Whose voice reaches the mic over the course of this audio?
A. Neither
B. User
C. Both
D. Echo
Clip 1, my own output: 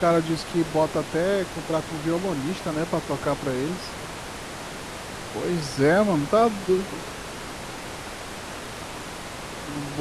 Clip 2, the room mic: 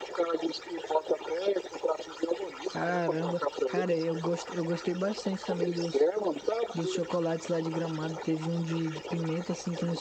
C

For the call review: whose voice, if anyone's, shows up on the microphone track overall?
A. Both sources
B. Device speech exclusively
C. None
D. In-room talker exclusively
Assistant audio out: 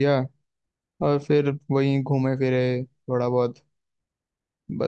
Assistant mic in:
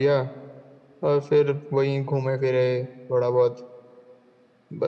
B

